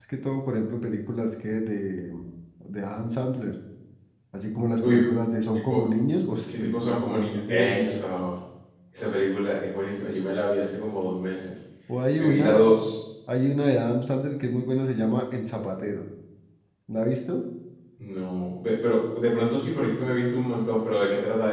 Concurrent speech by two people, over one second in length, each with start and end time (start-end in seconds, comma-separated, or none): 6.6-8.0